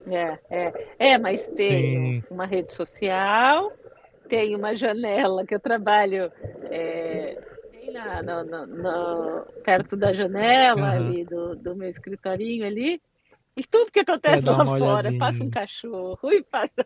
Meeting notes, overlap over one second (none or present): present